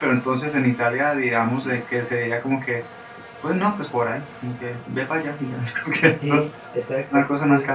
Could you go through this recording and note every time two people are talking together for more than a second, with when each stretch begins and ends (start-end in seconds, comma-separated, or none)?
none